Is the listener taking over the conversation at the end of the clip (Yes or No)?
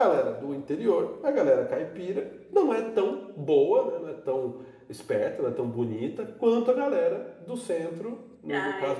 Yes